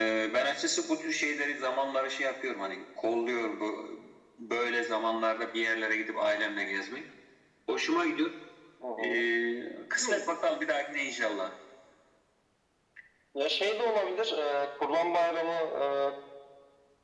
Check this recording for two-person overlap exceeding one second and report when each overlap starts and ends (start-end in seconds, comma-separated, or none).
none